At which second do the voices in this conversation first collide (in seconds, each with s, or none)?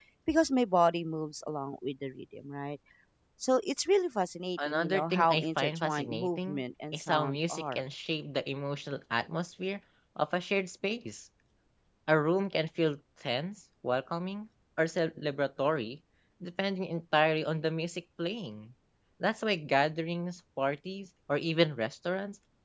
4.6 s